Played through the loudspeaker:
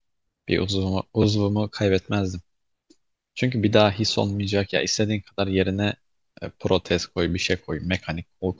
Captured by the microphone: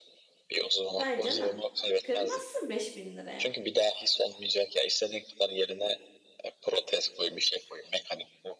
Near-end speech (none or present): present